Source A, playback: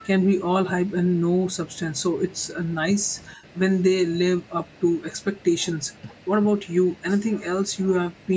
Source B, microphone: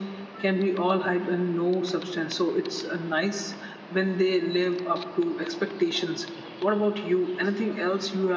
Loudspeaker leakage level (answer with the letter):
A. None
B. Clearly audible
B